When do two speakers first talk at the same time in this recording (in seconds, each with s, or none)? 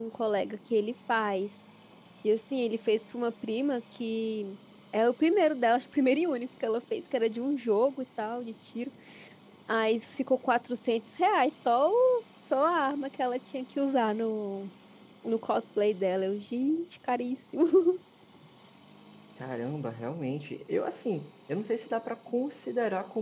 none